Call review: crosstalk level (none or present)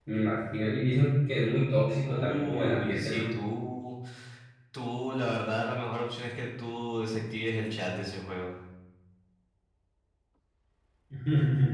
present